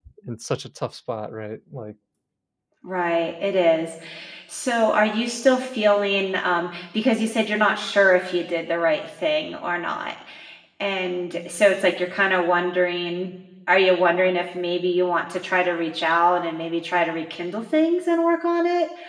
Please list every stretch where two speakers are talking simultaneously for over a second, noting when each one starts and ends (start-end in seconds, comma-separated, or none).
none